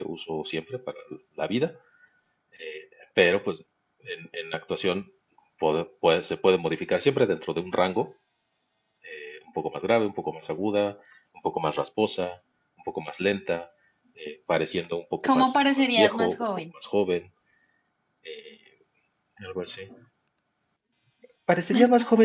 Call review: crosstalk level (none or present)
present